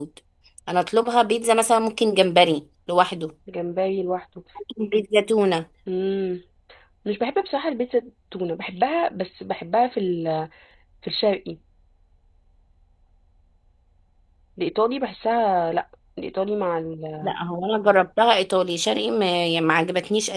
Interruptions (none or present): none